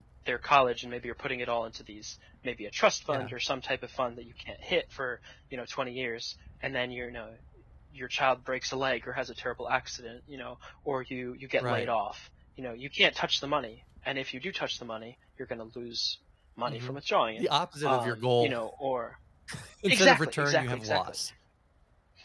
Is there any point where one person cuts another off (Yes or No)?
Yes